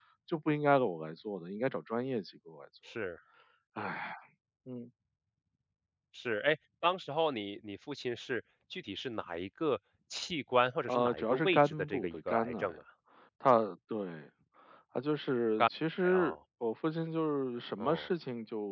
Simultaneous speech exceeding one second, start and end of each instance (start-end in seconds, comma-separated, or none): 10.9-12.8